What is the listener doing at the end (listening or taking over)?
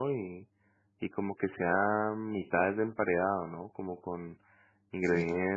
listening